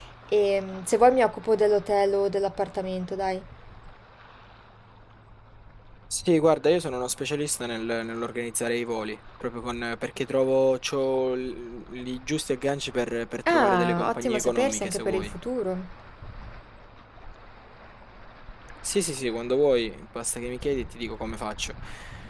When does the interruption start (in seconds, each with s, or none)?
13.5 s